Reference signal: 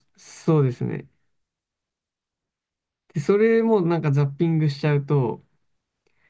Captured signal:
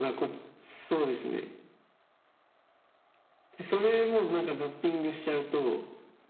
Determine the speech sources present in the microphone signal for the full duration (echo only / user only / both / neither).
echo only